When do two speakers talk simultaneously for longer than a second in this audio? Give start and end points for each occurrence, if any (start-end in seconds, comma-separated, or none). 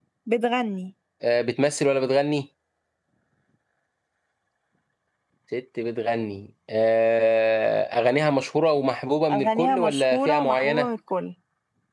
9.3-10.9